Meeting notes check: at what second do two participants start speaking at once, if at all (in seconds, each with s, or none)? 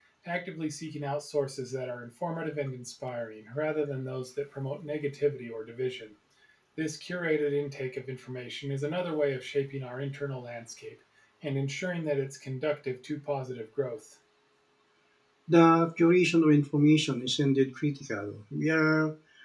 none